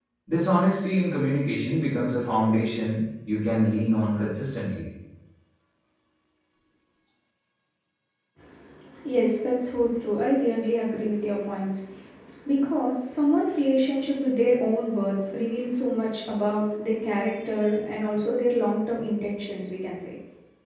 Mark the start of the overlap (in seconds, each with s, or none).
none